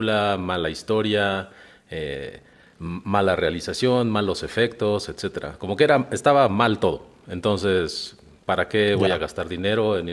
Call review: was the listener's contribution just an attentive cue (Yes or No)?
Yes